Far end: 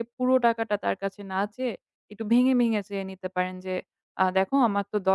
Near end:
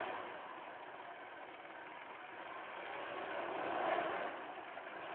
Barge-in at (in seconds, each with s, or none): none